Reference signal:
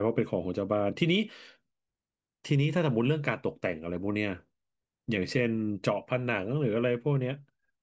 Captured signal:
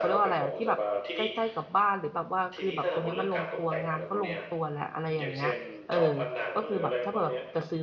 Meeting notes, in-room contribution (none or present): present